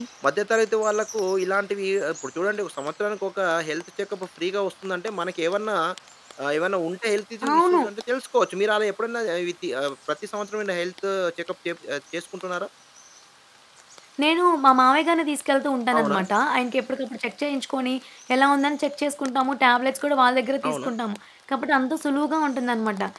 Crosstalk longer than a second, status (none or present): none